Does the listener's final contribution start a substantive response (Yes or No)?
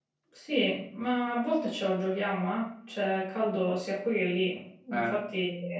No